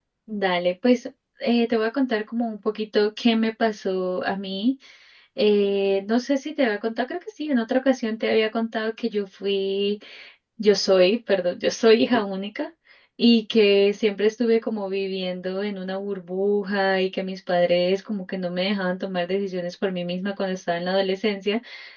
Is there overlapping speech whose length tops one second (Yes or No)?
No